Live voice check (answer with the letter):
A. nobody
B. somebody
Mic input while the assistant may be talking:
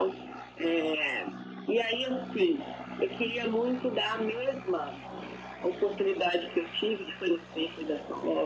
A